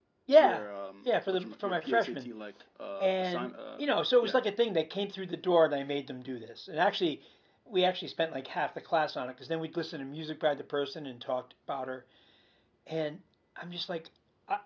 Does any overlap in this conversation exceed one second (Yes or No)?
Yes